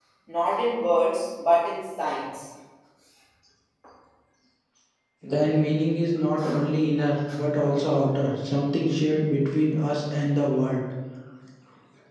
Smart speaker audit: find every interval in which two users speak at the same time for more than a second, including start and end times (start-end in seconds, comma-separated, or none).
none